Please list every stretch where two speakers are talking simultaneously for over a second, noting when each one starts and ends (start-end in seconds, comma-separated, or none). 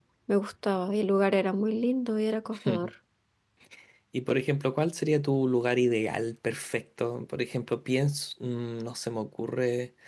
none